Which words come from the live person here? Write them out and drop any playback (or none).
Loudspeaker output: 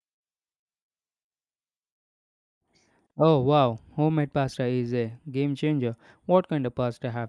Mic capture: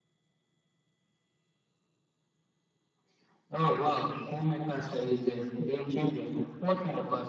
none